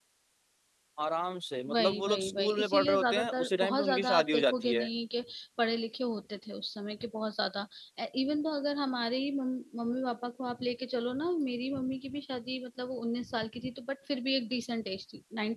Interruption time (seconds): 1.7 s

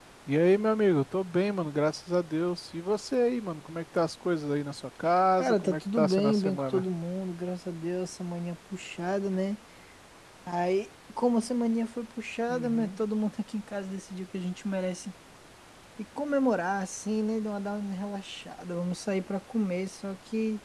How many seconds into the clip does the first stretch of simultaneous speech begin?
5.4 s

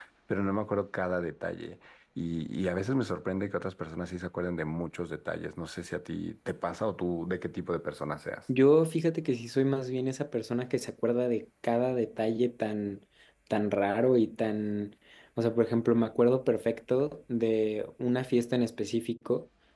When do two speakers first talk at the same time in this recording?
none

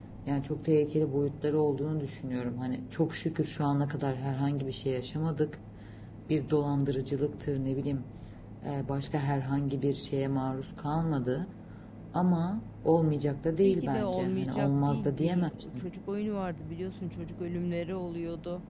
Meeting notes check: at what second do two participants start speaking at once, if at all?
13.5 s

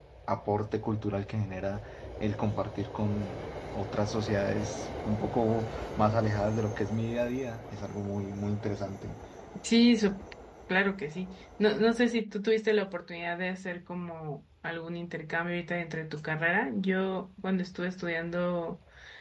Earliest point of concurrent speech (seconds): none

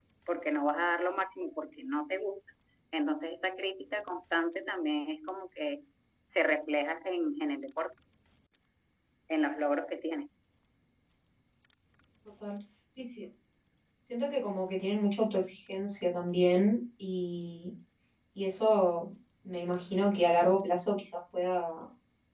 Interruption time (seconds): none

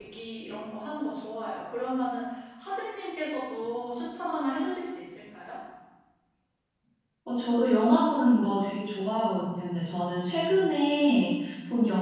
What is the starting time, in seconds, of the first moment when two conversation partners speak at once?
none

